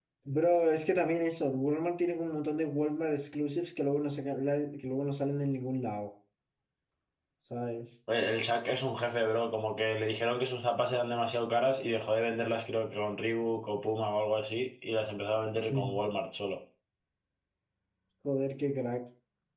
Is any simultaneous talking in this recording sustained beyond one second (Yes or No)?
No